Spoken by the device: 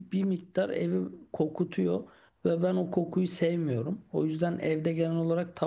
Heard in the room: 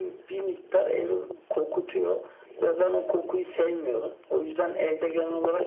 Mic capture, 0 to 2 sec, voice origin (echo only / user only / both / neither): echo only